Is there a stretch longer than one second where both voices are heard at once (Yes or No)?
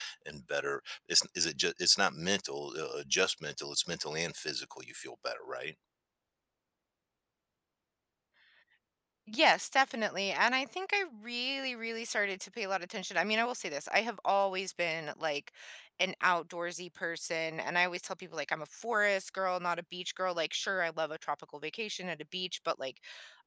No